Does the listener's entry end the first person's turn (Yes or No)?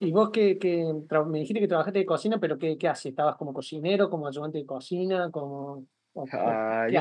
Yes